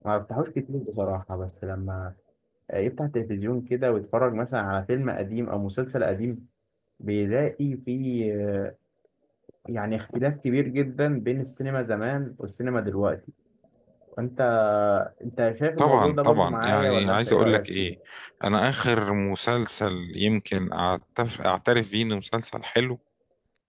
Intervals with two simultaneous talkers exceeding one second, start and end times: 15.8-17.9

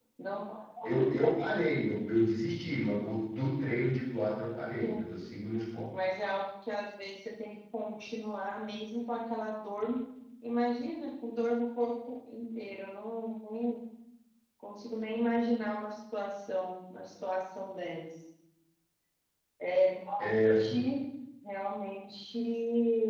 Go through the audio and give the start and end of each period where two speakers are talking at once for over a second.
none

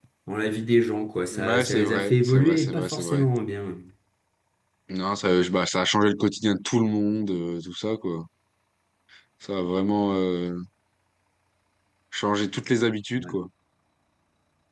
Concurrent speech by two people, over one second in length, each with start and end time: 1.3-3.2

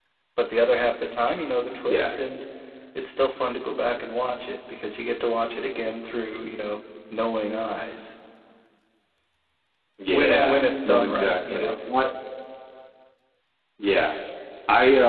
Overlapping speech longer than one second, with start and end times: 10.1-11.7

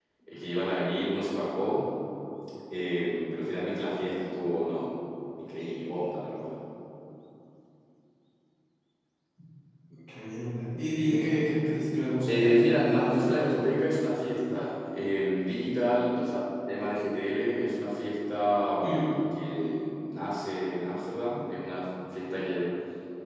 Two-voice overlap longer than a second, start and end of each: 12.3-13.6

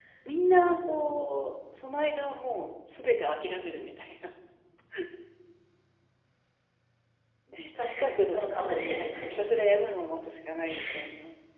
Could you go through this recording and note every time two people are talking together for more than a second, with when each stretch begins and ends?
7.8-9.2

